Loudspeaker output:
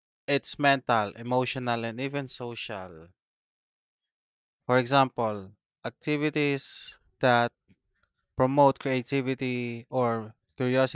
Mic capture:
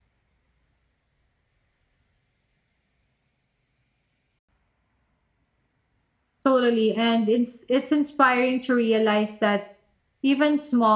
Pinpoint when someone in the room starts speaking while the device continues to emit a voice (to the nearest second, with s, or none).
6 s